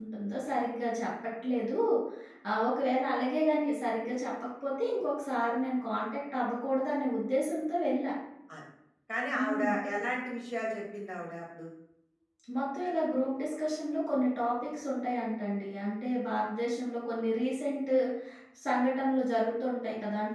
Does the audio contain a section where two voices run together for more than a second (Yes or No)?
No